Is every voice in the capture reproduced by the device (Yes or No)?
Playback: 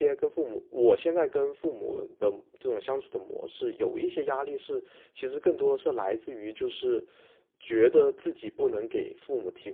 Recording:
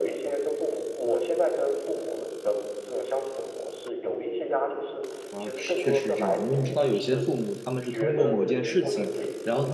No